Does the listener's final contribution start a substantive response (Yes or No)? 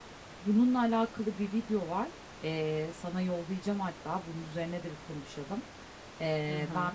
No